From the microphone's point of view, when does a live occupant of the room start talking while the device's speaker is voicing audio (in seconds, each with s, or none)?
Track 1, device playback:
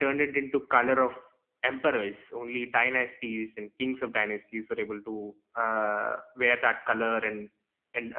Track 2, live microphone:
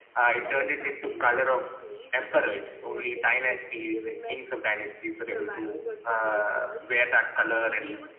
0.3 s